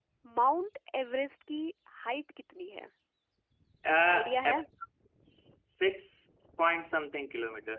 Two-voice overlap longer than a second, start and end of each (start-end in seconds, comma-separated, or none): none